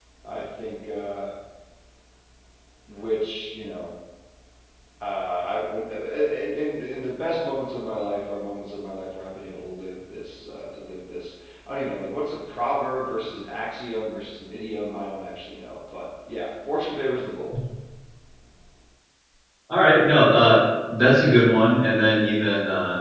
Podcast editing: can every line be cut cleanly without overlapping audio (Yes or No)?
Yes